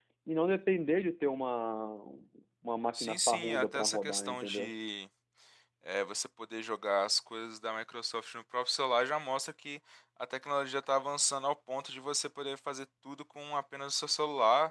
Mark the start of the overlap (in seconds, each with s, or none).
2.9 s